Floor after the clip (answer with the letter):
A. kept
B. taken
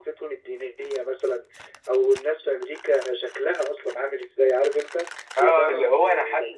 B